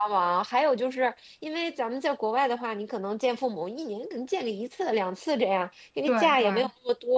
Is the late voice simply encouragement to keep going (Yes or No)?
Yes